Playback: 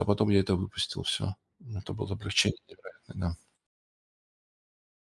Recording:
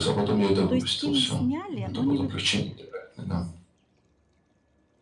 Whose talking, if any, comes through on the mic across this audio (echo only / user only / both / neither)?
both